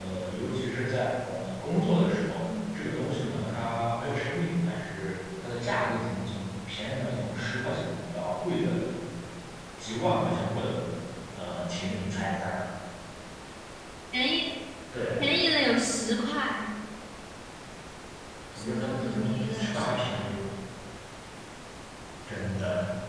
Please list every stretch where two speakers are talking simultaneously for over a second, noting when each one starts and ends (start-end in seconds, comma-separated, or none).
18.6-20.4